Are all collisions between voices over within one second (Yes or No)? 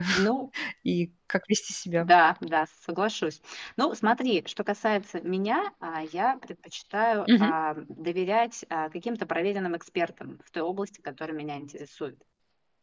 Yes